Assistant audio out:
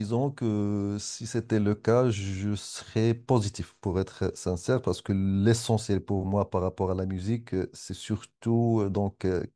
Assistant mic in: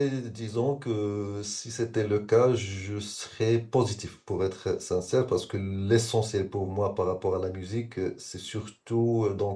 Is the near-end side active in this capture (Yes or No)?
No